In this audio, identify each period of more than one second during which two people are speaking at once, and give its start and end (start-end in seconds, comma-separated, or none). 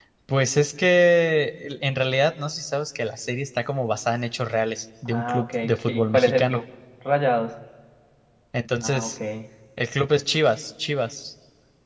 5.0-6.6